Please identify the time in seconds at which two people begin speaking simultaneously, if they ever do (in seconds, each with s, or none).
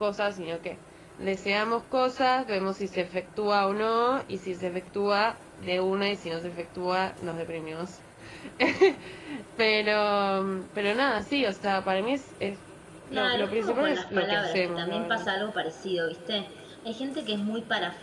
13.1 s